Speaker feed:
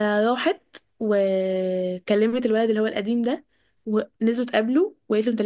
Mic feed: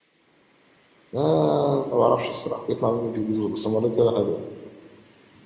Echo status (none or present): none